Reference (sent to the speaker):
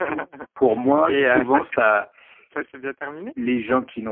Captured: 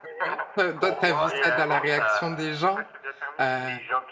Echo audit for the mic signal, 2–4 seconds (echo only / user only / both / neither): both